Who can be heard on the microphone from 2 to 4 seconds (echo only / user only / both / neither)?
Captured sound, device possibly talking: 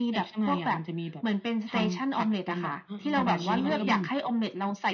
both